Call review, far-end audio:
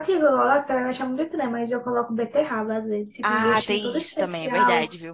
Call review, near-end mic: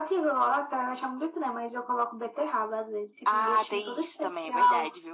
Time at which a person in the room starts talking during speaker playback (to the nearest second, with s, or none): none